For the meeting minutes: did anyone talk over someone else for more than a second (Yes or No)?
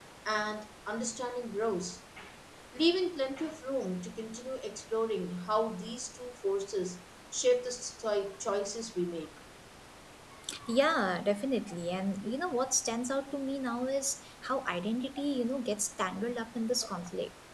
No